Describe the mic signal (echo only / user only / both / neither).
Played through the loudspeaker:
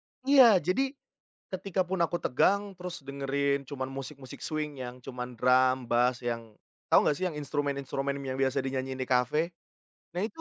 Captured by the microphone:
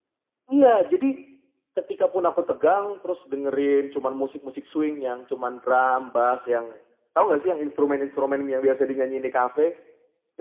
echo only